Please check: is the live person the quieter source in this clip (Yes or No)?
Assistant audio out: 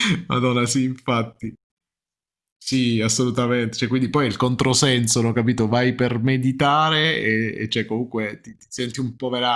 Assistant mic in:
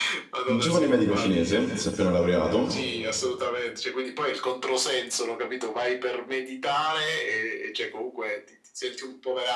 No